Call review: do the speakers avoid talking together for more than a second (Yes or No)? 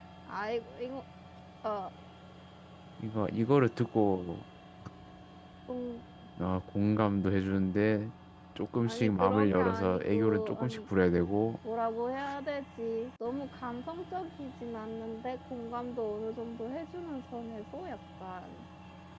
No